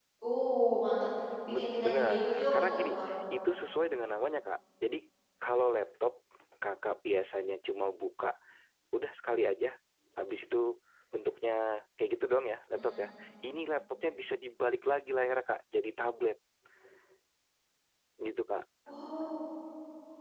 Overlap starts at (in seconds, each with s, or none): 1.5 s